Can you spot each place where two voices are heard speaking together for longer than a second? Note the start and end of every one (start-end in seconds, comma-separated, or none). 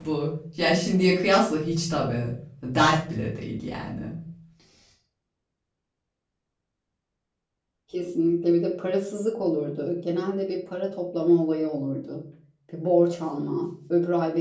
none